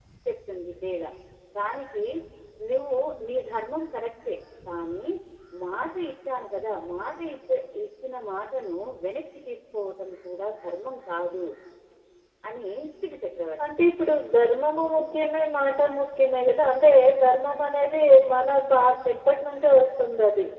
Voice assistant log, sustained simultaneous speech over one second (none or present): none